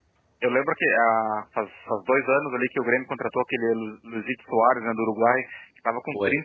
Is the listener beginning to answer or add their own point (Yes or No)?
No